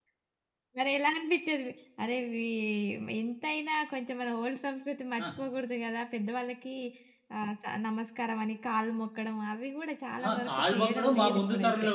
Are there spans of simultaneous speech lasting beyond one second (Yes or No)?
Yes